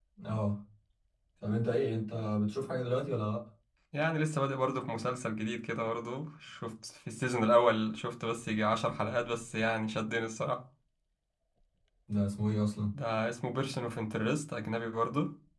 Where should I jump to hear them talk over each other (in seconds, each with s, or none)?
none